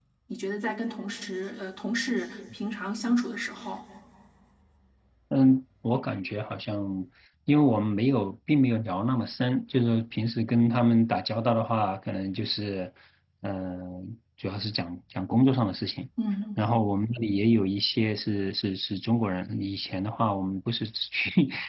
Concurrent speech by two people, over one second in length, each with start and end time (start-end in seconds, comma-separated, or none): none